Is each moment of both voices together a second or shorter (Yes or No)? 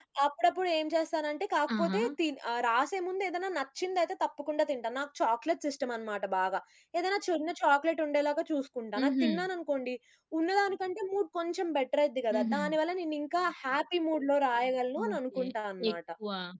Yes